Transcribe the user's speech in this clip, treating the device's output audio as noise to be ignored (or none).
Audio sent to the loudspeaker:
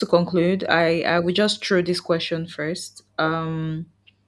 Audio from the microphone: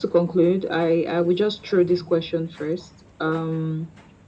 none